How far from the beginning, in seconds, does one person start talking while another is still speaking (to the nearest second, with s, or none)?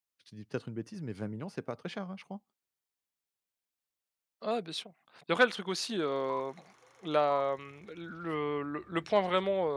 none